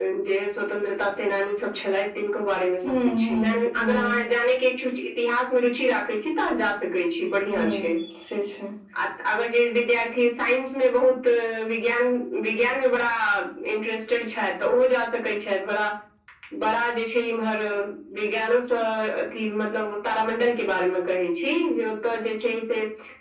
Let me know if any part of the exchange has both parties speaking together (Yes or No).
Yes